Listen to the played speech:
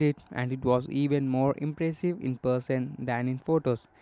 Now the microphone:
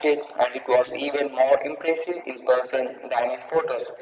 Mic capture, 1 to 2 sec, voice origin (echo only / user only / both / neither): echo only